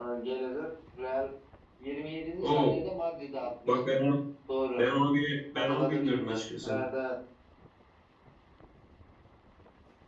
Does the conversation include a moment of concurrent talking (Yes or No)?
Yes